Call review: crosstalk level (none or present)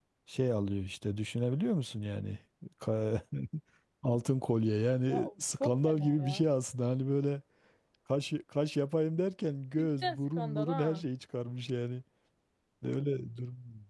present